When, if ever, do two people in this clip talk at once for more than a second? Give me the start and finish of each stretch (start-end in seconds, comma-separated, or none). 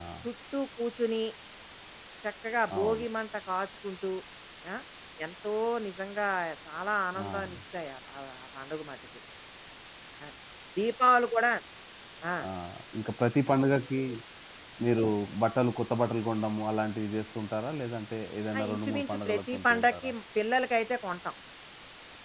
18.6-20.1